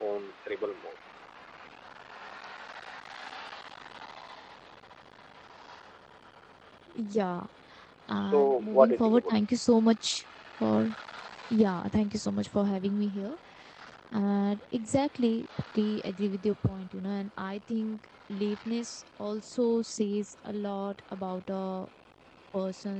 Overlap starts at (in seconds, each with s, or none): 8.2 s